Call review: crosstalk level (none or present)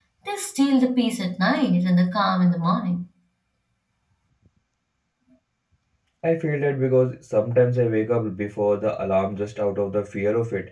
none